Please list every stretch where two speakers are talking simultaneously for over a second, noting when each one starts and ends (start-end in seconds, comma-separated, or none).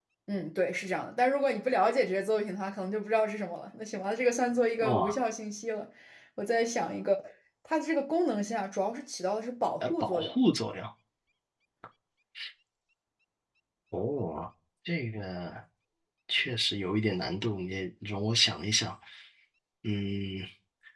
none